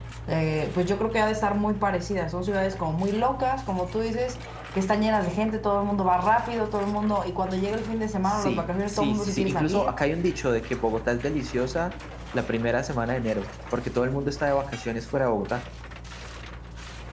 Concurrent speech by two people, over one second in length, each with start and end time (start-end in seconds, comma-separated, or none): 8.2-10.0